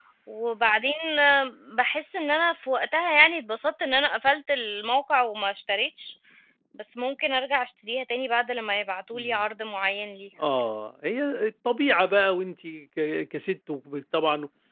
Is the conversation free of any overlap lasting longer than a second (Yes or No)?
Yes